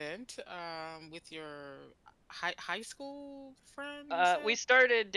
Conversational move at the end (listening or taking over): taking over